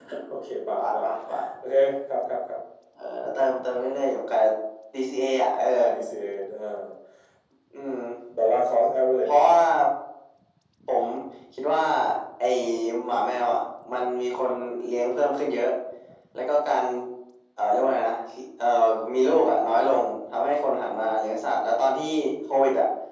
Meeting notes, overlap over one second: none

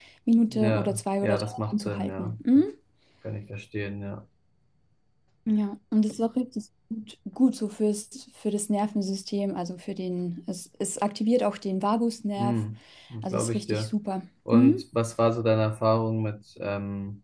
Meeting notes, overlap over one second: present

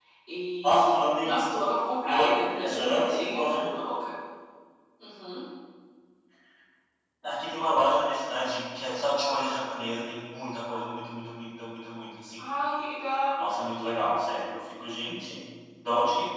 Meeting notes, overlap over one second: present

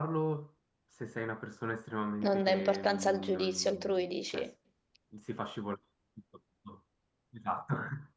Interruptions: present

